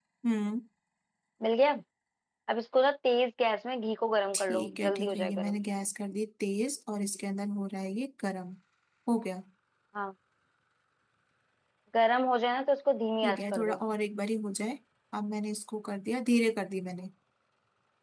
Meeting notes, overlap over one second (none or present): present